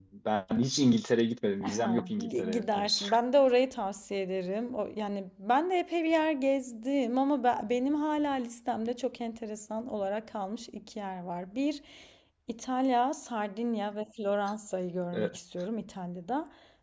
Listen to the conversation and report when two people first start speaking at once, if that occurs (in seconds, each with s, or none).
1.6 s